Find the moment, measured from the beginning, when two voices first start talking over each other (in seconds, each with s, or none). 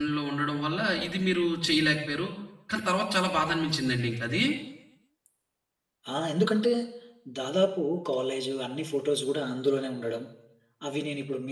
none